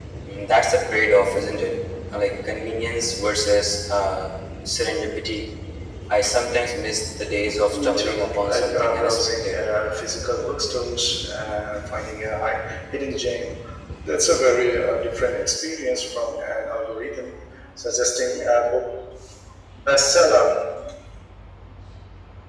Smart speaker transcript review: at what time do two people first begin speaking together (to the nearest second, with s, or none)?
8 s